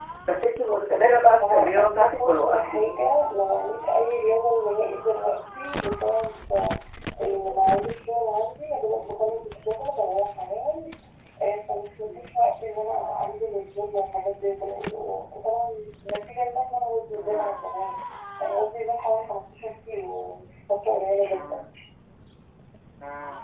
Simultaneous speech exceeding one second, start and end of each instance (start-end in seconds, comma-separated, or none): 1.5-2.8